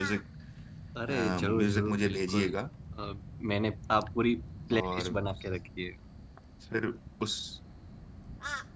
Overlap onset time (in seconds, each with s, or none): 1.1 s